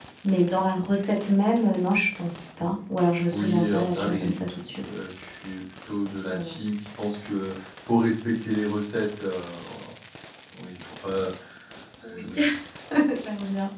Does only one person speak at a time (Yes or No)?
No